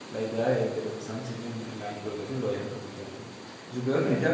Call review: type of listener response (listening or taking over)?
listening